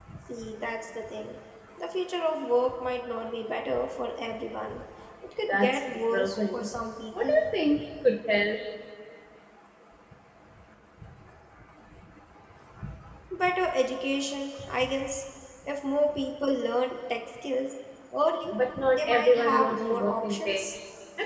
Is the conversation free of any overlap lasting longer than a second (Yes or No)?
No